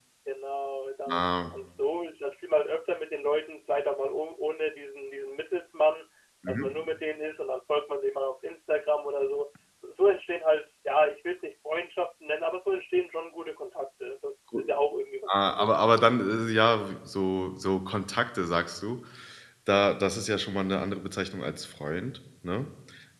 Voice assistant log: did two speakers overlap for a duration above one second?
No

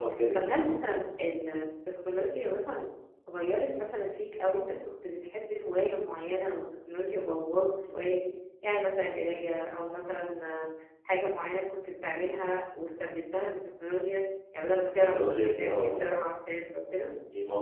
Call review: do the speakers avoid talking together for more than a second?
No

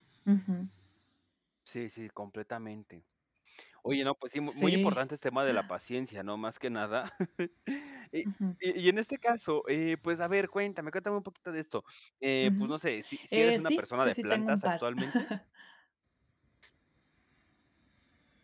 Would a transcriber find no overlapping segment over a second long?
No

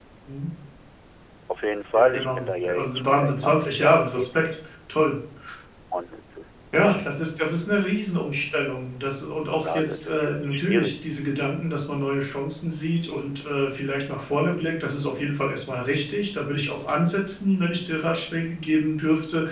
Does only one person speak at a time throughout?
No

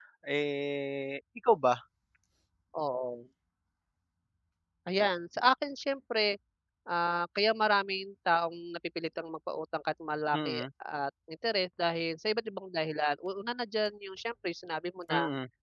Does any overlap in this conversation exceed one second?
No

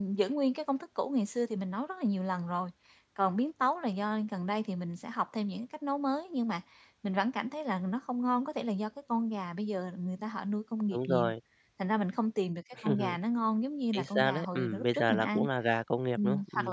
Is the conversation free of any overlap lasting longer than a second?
No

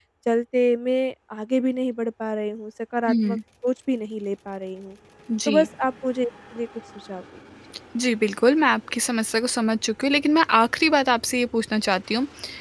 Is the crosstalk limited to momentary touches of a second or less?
Yes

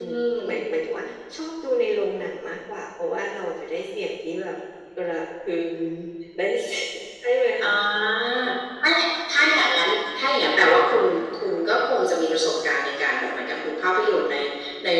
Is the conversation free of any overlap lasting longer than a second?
Yes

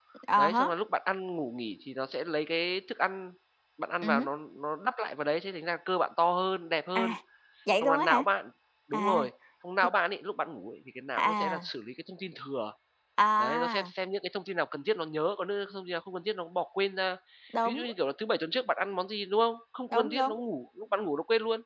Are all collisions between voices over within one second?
Yes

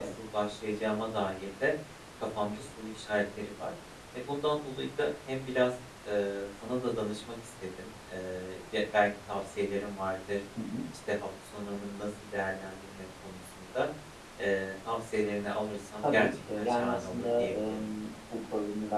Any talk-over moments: Yes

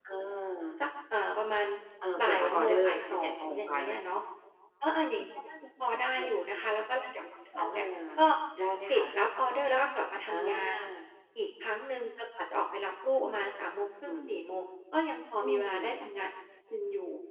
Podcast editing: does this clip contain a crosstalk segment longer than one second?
Yes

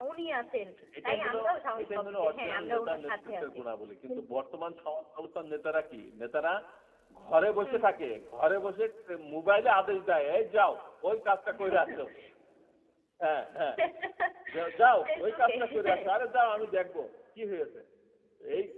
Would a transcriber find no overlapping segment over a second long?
No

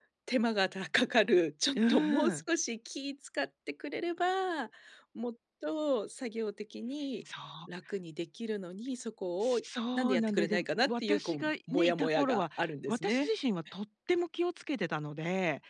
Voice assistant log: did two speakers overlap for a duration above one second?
Yes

